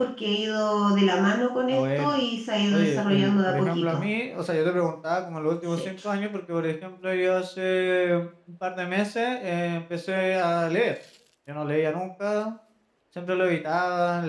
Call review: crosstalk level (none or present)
present